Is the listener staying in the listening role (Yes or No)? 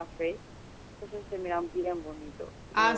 No